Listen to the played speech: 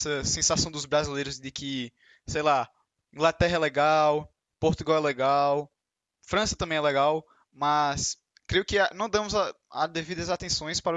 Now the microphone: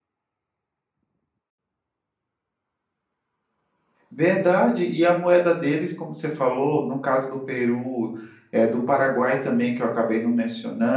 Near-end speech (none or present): present